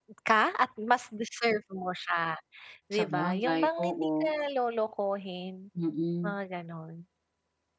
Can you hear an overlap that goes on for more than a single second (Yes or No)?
Yes